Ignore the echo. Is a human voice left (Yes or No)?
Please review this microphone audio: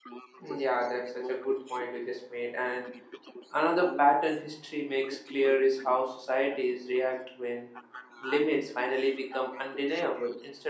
Yes